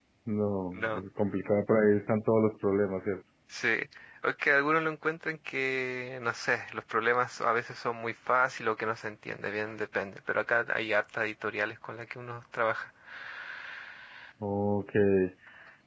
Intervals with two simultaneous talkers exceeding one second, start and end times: none

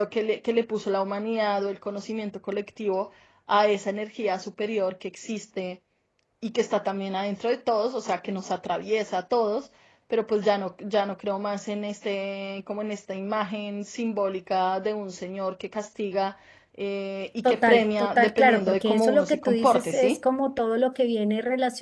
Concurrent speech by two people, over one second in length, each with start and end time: 17.4-20.2

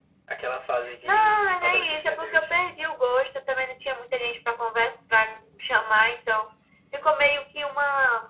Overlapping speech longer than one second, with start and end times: 1.0-2.5

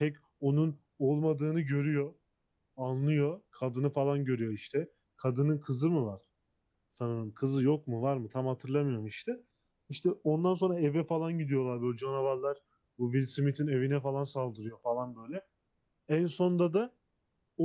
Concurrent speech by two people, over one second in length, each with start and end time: none

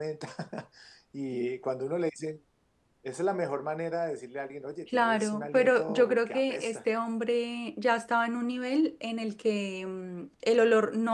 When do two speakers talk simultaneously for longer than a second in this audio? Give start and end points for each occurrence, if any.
4.9-6.8

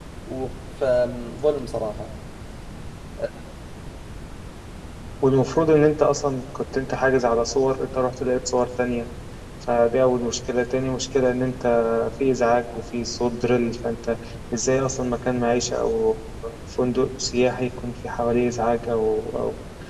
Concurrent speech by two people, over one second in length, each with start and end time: none

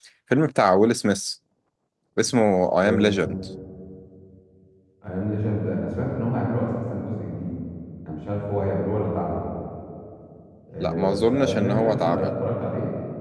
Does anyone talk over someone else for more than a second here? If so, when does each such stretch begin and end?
10.8-12.3

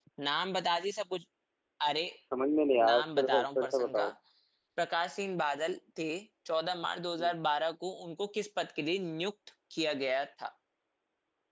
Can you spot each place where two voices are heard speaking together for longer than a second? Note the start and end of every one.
2.9-4.1

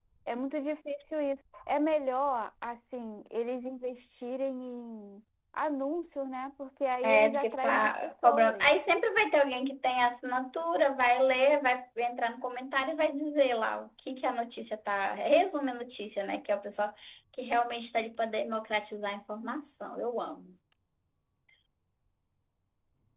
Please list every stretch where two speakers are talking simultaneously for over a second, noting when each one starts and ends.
7.0-8.7

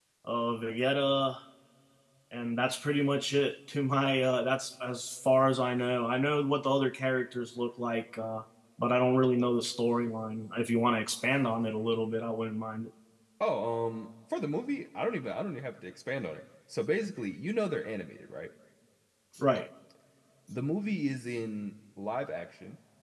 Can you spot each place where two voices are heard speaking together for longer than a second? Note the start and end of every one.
none

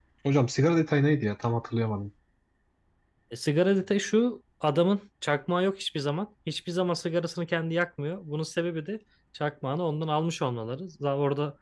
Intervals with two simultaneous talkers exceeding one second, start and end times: none

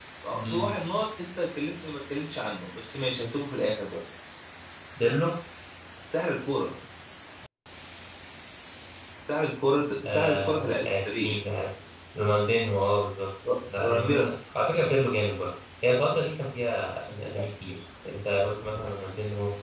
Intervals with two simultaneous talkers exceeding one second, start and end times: 10.0-11.5

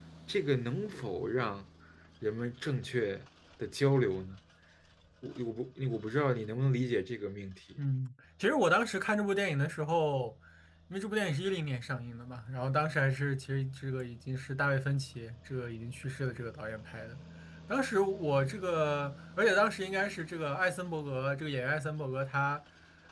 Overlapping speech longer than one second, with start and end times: none

